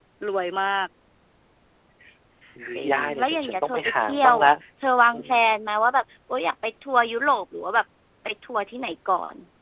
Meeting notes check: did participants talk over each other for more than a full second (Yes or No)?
Yes